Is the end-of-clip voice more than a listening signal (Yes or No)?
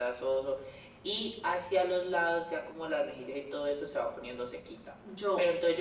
No